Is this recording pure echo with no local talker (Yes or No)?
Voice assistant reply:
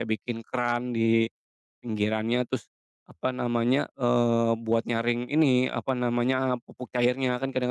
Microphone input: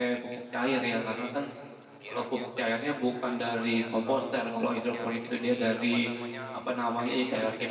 No